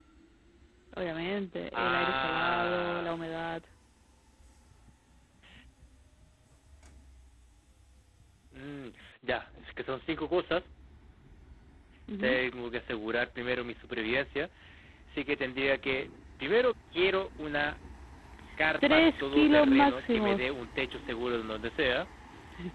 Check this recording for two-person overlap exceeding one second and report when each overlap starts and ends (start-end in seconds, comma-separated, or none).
1.7-3.1, 18.9-20.3